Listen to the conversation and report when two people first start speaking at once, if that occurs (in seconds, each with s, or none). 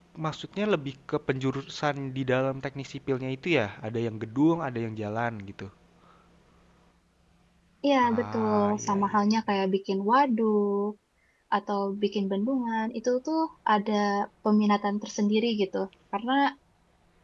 8.0 s